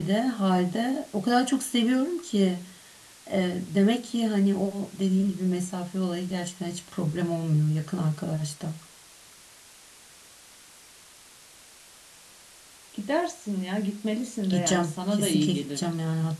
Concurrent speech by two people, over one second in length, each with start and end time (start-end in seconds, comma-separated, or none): 14.5-15.8